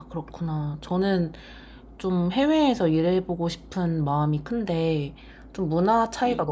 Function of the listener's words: listening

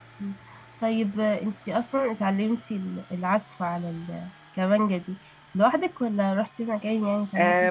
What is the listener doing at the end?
taking over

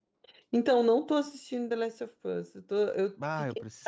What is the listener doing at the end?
taking over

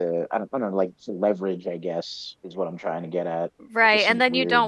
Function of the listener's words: taking over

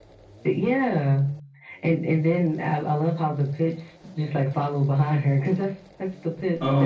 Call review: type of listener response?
taking over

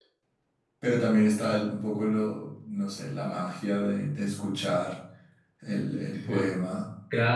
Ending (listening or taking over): taking over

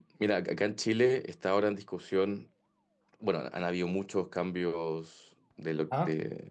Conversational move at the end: listening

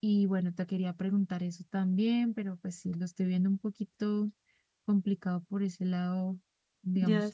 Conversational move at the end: taking over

